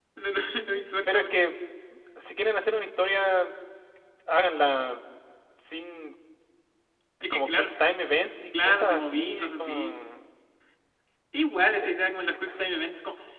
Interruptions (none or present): present